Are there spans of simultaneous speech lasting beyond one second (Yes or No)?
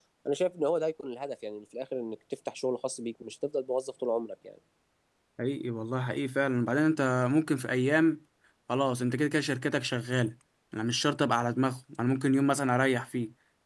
No